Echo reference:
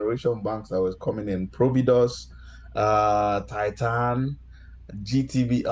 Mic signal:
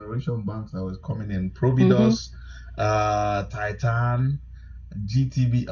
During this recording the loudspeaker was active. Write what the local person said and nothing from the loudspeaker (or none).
Mm-hmm.